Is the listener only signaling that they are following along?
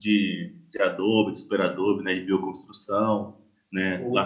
Yes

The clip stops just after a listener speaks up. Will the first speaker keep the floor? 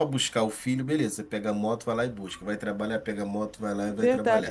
No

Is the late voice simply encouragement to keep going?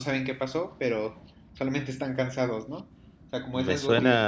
No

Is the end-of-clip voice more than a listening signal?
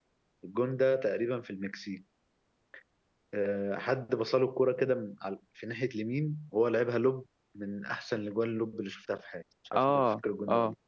Yes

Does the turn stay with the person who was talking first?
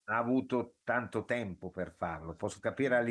Yes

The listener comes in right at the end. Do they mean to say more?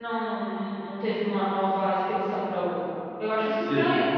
Yes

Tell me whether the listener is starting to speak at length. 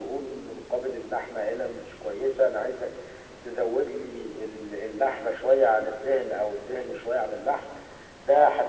No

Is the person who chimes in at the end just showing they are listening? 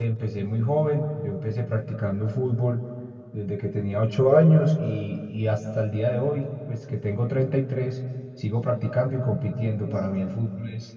Yes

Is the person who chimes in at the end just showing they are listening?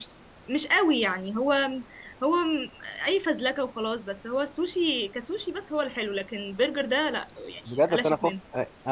No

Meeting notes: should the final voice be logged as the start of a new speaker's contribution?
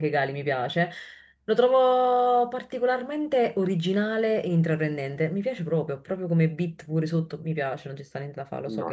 Yes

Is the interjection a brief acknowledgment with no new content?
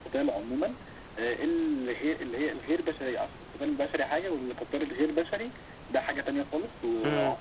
Yes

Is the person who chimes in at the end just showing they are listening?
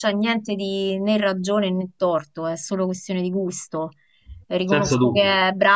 Yes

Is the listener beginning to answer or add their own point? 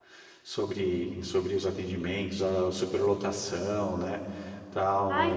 Yes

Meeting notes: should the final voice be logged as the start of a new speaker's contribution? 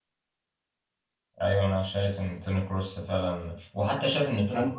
No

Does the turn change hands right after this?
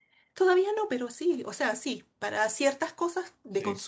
No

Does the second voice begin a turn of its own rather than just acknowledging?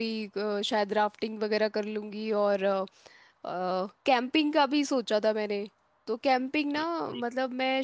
No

